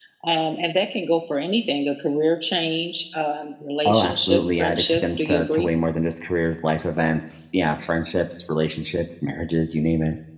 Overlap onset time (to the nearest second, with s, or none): 4 s